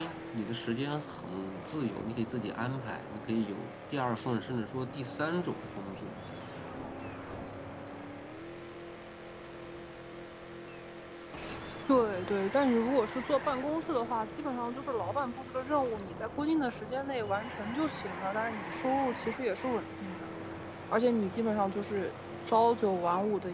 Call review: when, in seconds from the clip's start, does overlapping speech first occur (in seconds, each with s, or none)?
none